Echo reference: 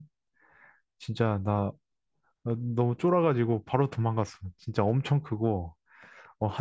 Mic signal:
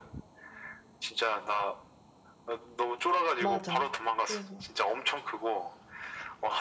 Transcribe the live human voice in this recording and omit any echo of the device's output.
맞아. 그래서

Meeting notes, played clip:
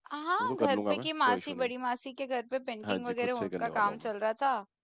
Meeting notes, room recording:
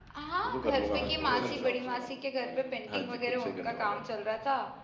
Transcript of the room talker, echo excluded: आसपास बहुत सारी शॉप्स हैं यहाँ पे आगे

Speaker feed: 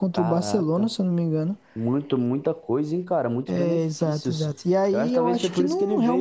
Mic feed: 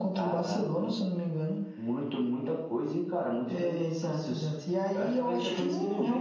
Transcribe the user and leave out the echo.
none

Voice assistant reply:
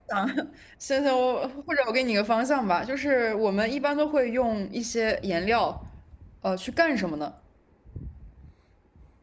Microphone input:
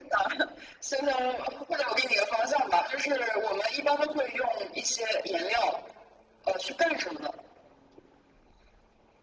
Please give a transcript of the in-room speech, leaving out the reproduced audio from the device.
none

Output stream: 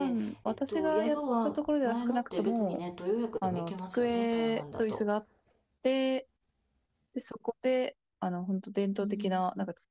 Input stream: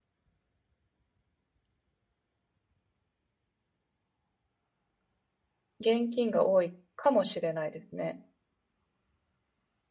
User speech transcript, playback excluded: 現金が多いかもしれないですね。

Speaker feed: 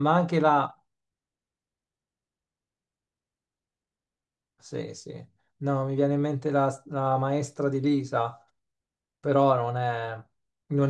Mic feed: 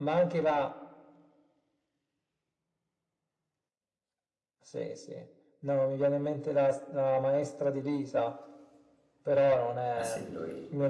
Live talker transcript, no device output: Ah sì, lui.

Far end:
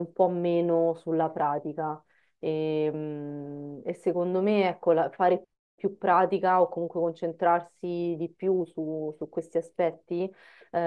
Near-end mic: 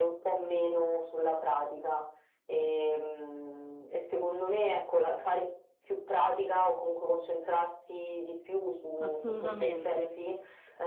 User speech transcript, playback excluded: Assolutamente.

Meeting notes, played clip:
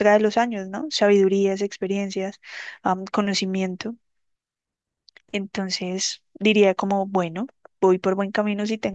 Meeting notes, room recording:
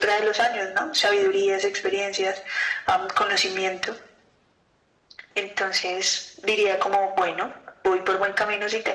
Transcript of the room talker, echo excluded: none

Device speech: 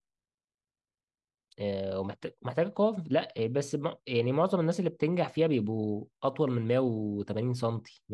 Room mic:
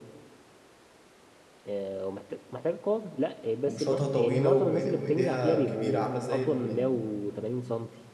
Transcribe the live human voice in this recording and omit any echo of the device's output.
ومشاطها طويلة وإيد- وايديها كبيرة عاملة زي ال-

